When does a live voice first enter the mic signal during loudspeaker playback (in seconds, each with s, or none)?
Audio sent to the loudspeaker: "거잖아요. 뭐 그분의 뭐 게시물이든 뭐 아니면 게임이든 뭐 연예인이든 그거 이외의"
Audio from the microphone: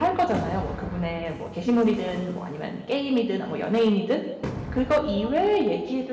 none